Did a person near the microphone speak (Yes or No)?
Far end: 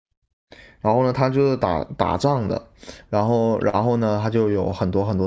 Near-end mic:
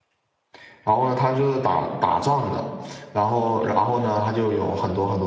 No